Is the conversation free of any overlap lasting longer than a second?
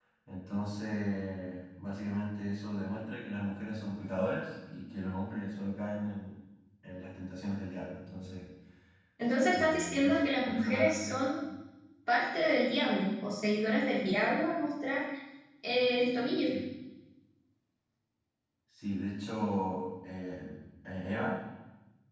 No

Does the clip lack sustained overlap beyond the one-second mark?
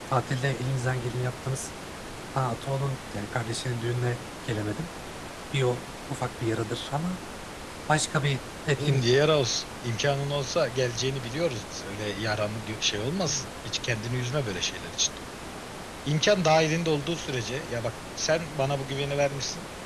Yes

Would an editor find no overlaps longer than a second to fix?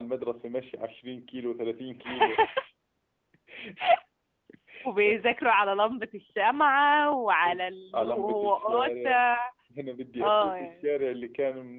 No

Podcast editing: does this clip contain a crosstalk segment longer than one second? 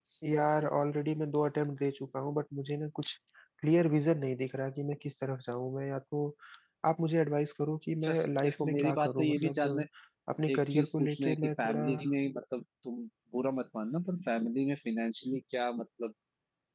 Yes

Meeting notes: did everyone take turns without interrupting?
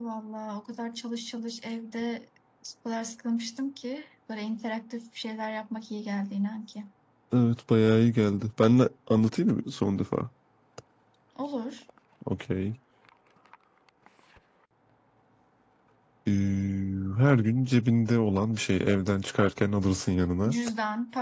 Yes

